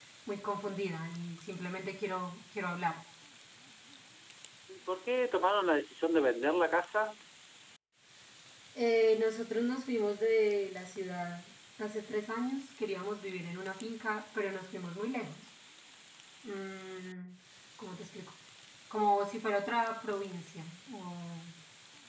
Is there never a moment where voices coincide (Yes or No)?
Yes